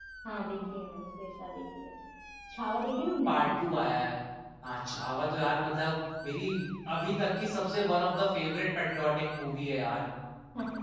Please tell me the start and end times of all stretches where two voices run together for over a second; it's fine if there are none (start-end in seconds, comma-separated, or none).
none